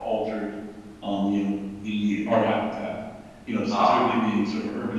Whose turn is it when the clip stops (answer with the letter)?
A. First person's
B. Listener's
A